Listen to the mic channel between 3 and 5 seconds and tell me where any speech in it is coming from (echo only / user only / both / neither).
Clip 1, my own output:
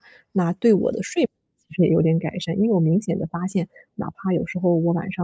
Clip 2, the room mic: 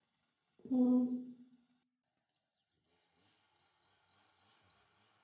neither